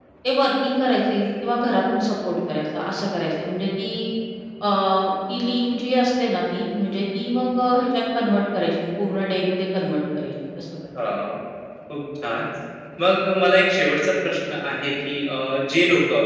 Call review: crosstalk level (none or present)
none